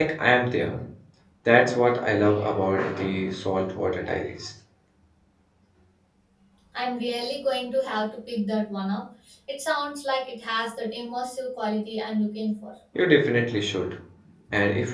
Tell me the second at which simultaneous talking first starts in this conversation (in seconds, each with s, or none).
none